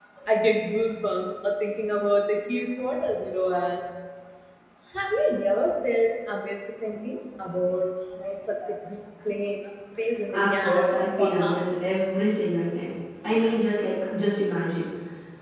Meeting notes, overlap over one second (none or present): present